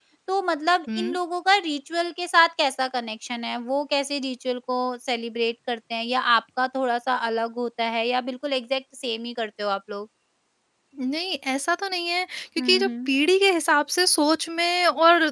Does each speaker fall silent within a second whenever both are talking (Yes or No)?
Yes